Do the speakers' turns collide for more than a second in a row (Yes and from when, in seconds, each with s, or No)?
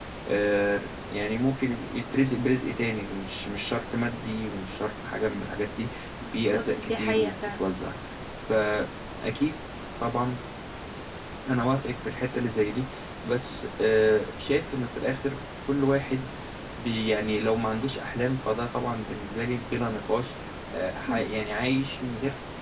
Yes, from 6.3 s